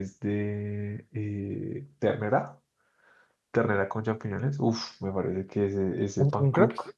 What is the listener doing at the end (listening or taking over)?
listening